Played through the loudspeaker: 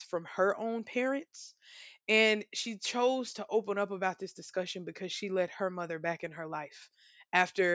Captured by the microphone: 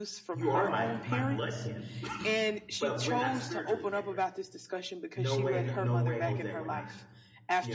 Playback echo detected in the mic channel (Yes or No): Yes